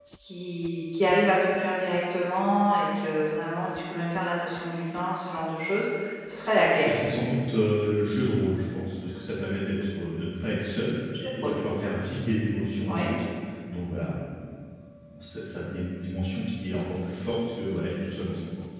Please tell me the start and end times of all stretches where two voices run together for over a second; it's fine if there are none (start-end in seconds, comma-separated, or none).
none